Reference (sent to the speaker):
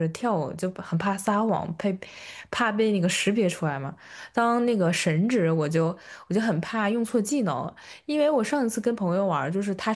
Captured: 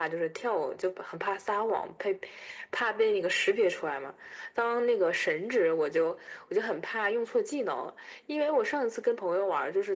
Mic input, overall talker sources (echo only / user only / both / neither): echo only